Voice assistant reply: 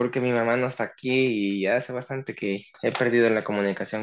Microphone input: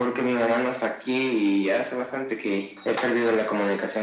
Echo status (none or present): present